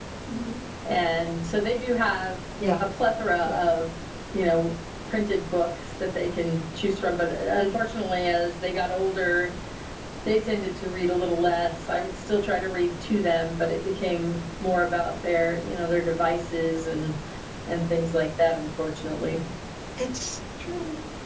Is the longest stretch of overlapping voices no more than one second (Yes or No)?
Yes